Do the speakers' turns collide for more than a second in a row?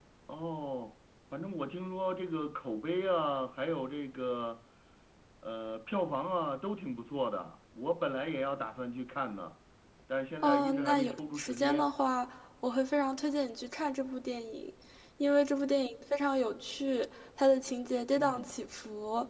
Yes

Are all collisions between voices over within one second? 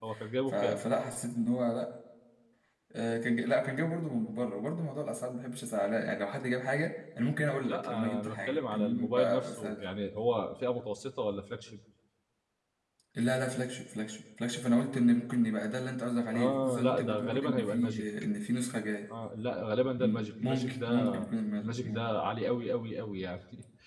No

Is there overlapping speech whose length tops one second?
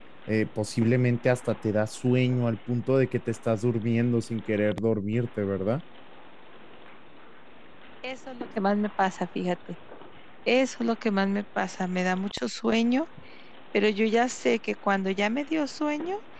No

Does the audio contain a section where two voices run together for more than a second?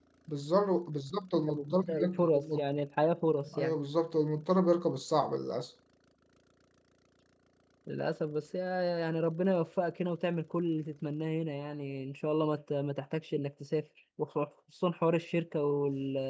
Yes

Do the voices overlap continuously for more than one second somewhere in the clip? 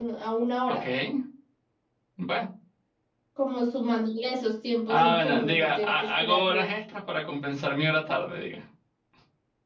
Yes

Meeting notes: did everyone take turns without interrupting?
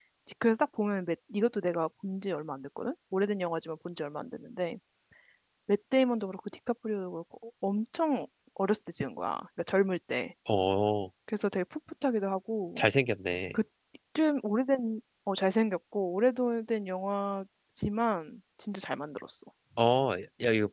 Yes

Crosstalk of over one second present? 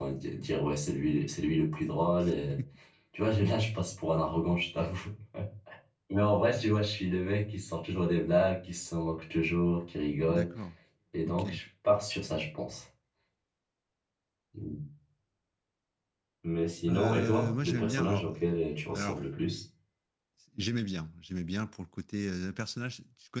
Yes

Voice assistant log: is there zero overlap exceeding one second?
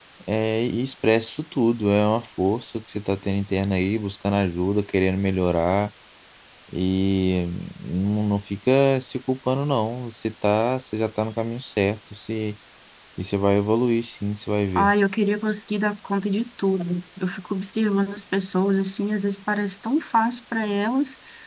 Yes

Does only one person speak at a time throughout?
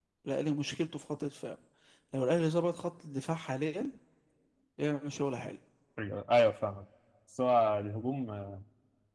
Yes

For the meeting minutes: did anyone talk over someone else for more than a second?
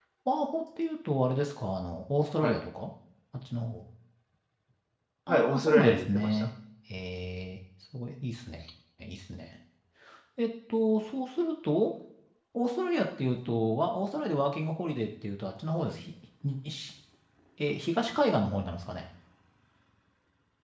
Yes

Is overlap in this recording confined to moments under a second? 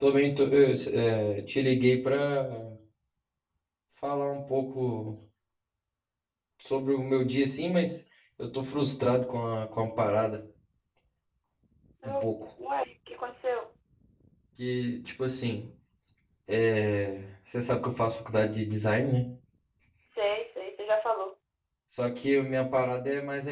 Yes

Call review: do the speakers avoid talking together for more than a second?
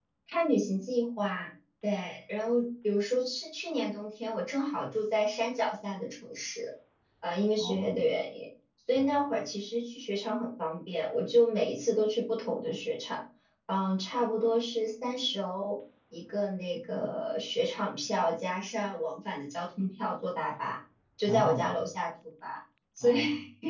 Yes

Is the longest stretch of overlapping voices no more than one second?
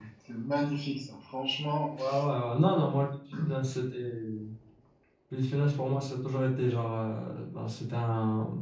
Yes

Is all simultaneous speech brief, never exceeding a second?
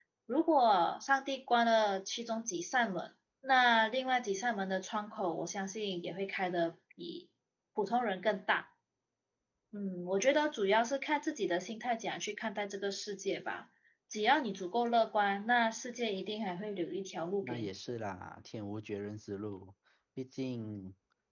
Yes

